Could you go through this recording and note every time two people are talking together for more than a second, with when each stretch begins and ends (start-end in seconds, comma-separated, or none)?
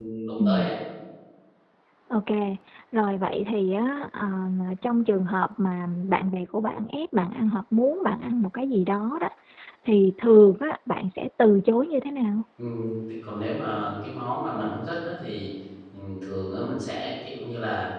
none